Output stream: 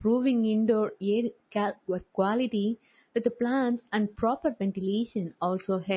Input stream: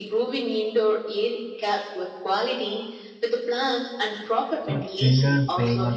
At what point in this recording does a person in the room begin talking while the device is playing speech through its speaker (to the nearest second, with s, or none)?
5 s